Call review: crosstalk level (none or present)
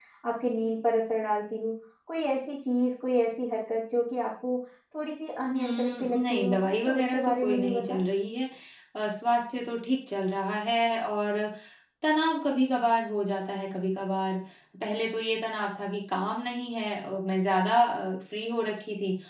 present